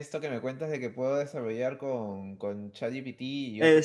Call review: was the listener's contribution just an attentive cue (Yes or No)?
No